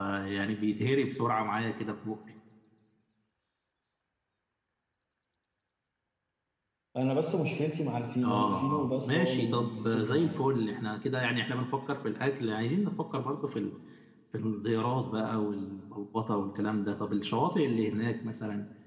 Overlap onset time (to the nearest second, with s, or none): 8 s